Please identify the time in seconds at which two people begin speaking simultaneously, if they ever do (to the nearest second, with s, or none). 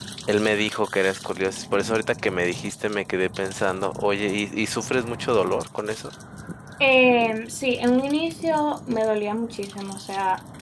none